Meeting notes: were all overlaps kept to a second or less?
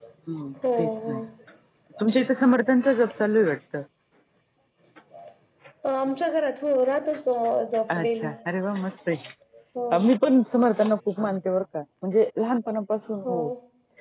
Yes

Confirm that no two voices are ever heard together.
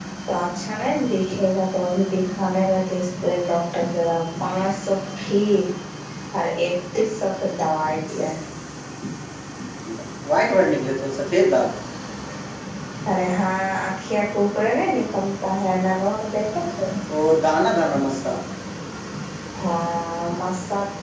Yes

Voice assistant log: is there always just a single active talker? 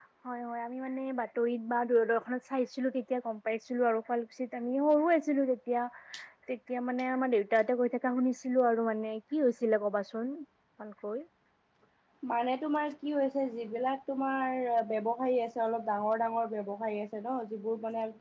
Yes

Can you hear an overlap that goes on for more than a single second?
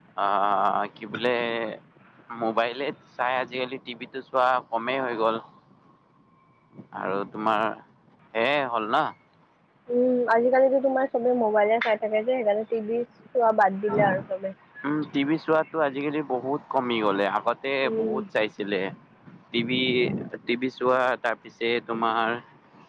No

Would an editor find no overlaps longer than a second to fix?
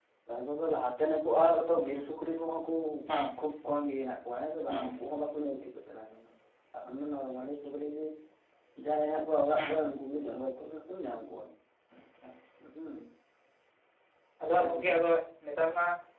Yes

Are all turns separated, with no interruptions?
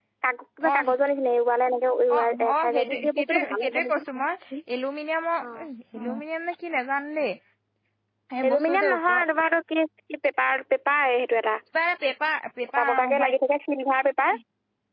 No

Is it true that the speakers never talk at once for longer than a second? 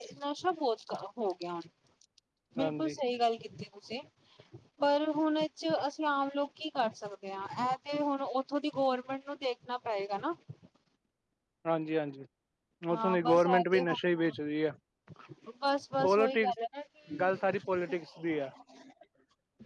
No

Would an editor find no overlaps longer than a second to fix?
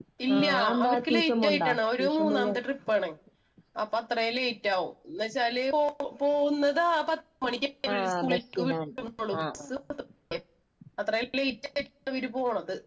No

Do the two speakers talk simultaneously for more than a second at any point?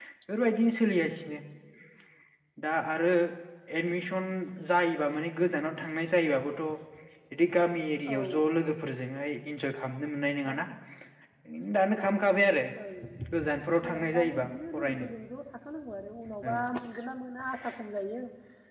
Yes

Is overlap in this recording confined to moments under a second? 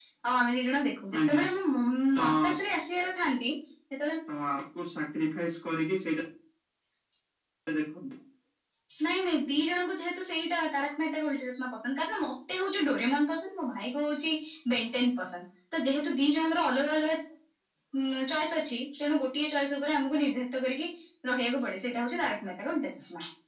Yes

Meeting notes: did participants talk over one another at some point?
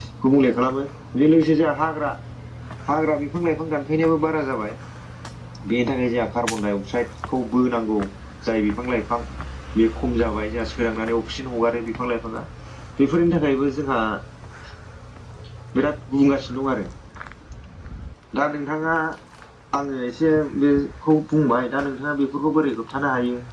No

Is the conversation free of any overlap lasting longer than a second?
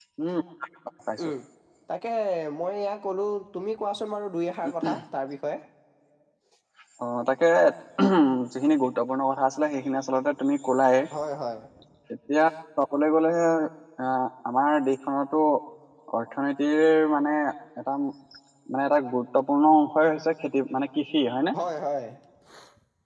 Yes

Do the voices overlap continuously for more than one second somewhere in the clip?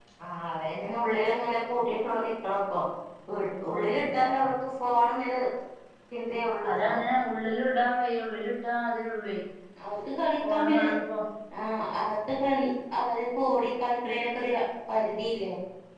No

